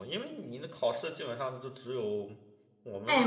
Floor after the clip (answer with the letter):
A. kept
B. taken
B